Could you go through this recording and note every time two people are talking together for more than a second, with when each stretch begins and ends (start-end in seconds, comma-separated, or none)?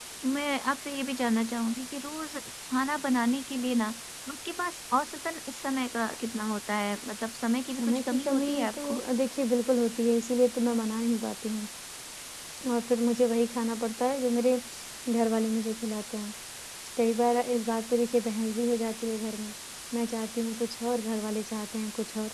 7.8-9.0